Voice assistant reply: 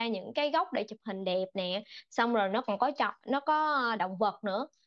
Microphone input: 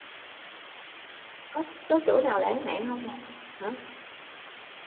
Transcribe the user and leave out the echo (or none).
có có chỗ nào lãng mạn không bà